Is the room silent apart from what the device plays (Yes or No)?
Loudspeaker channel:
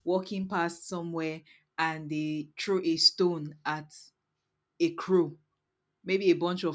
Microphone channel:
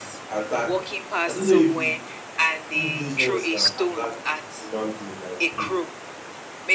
No